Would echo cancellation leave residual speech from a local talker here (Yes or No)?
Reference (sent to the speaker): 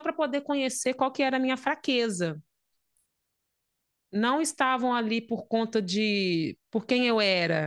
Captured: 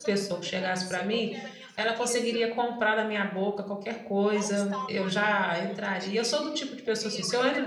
Yes